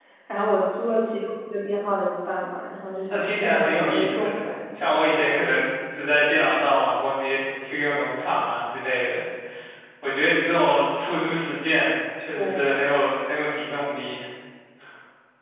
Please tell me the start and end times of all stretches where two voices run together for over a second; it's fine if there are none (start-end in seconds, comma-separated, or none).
3.1-4.4